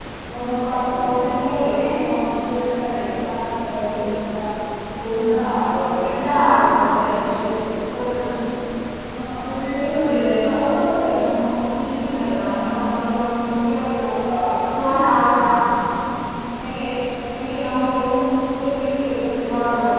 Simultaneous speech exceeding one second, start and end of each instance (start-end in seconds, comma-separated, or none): none